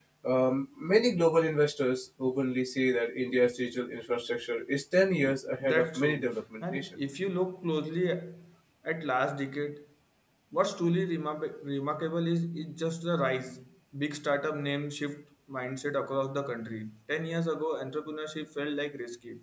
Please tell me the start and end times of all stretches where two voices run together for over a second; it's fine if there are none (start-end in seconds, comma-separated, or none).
5.6-7.0